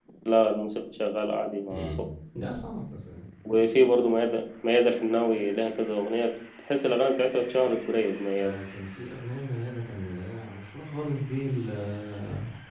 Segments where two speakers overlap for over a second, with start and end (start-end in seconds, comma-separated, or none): none